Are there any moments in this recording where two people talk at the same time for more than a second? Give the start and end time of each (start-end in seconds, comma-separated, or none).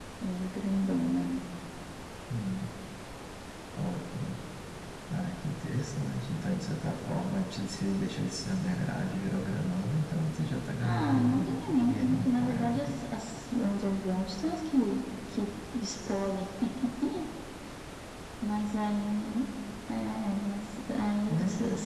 10.8-13.0